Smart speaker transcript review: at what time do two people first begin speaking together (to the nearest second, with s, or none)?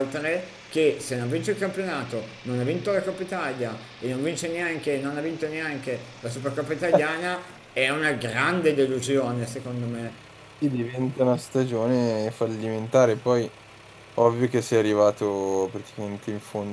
none